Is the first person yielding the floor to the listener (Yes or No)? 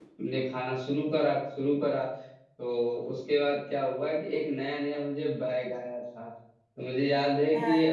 No